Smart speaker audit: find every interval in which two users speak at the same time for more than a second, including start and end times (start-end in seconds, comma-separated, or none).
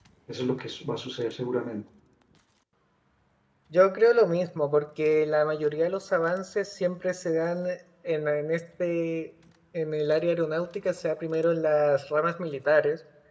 none